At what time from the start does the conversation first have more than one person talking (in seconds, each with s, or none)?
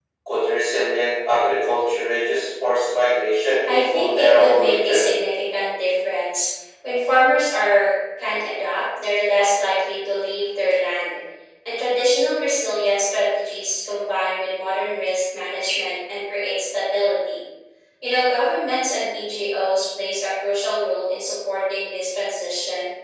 3.7 s